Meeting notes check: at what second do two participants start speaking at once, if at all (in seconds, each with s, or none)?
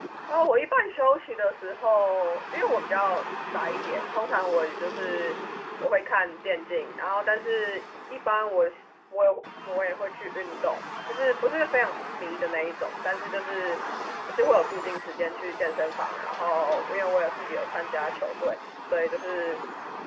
none